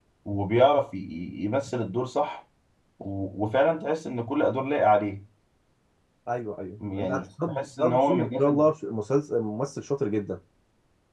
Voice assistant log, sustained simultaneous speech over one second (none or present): present